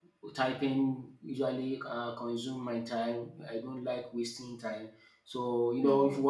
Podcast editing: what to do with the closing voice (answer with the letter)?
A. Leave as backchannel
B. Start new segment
A